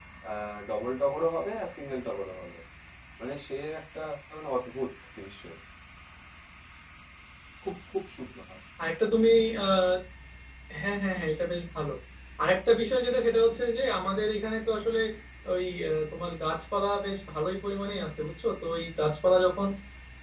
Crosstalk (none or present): none